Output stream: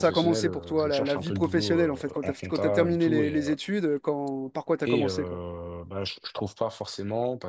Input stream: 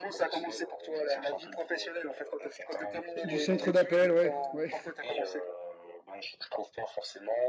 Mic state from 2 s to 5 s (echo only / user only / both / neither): both